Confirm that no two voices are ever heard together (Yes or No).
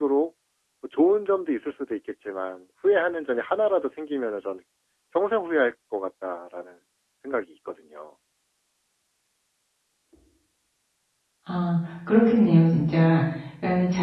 Yes